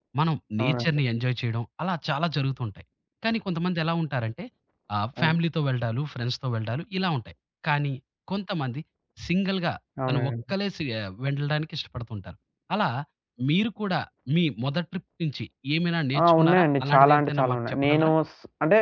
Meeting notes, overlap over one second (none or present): present